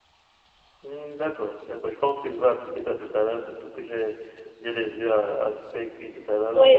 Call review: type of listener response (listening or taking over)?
taking over